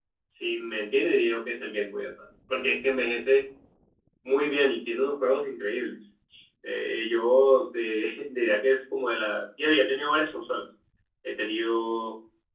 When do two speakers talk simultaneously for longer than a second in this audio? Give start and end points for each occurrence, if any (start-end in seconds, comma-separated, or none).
none